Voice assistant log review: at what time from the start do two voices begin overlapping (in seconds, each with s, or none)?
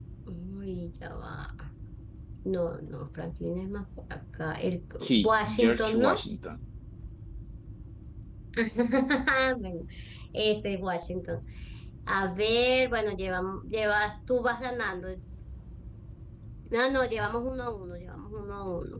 5.0 s